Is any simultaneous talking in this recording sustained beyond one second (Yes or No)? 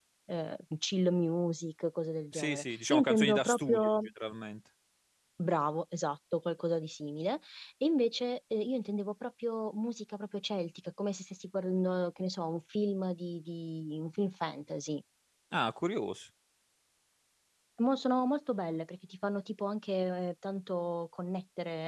Yes